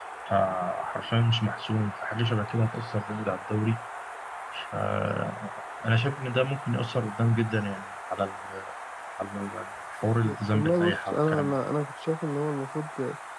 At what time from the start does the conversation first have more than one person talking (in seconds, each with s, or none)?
10.2 s